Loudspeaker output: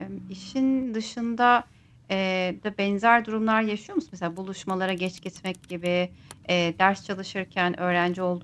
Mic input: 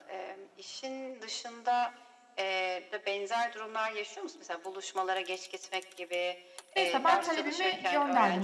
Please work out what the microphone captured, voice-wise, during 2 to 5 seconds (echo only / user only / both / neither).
echo only